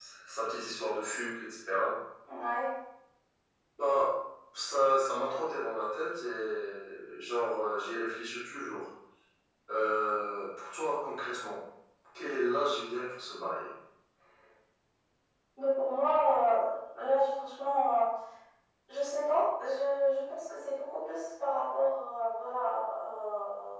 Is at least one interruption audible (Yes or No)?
No